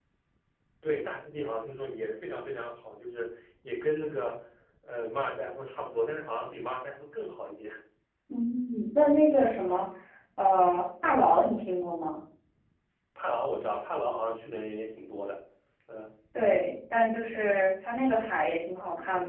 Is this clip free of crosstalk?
Yes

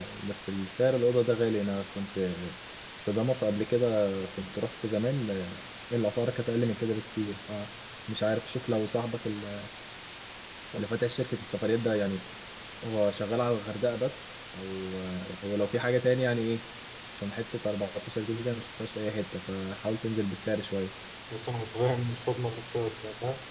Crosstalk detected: No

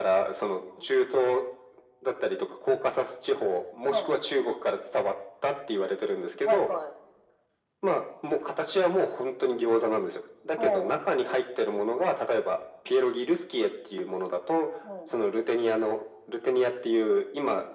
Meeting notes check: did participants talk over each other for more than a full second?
No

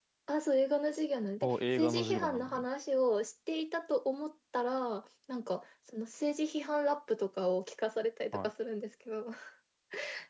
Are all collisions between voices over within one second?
No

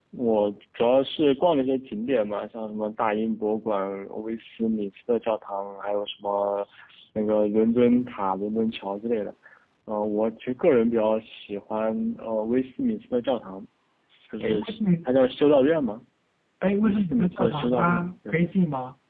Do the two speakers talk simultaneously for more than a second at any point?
Yes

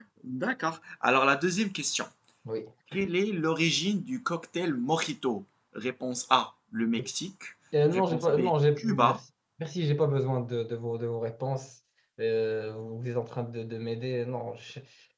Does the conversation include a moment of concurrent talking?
Yes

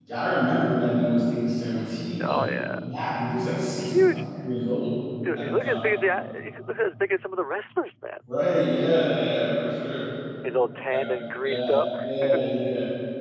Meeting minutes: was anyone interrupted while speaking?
Yes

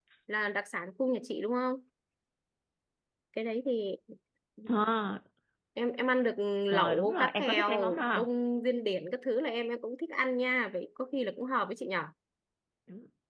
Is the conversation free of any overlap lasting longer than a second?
No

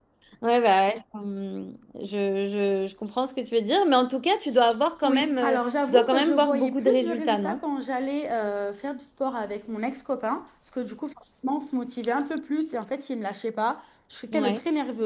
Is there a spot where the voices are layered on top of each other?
Yes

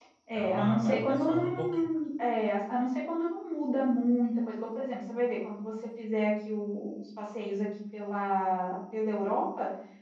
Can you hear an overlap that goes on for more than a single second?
Yes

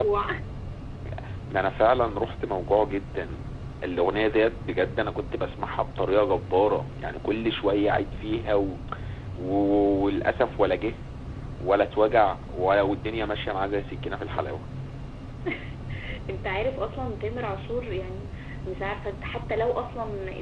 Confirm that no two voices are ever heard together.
Yes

